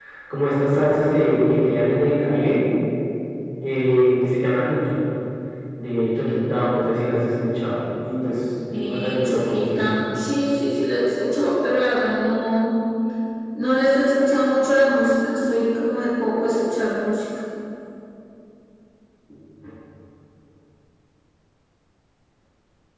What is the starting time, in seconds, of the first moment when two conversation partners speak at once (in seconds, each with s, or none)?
8.7 s